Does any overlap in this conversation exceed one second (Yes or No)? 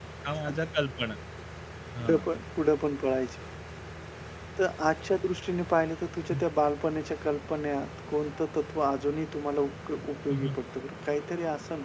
No